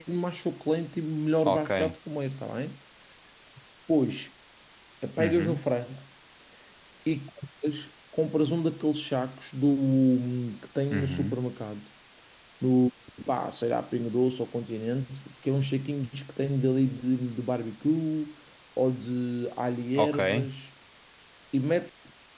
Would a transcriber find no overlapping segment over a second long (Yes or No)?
Yes